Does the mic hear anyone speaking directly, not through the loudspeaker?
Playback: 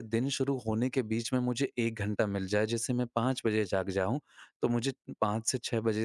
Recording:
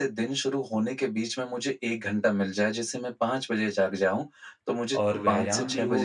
Yes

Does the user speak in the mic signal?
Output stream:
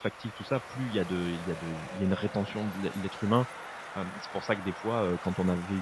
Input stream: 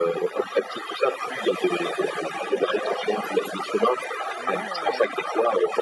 Yes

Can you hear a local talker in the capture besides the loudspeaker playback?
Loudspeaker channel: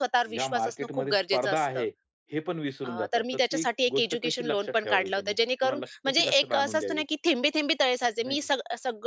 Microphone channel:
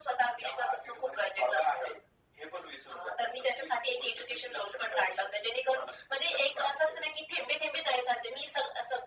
No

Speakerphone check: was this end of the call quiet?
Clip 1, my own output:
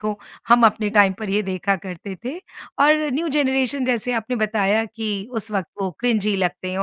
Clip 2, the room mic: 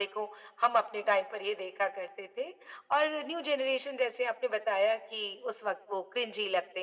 Yes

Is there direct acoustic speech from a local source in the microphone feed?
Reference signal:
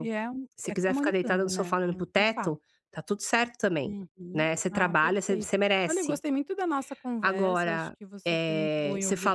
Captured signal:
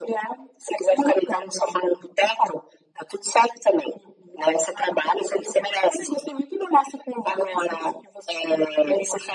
No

